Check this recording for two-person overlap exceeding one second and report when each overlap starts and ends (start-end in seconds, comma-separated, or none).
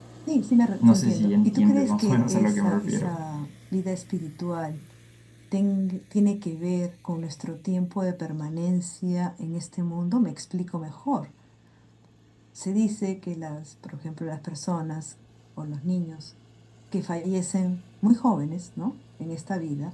0.8-3.2